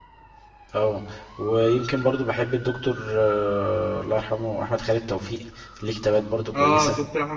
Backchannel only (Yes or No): No